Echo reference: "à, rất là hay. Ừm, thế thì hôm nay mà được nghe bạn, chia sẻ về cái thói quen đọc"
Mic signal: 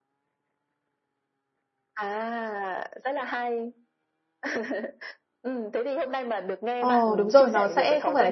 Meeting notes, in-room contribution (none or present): present